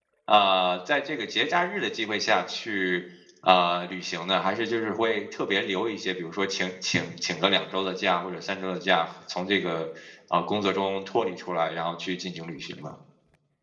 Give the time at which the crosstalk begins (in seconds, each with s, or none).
none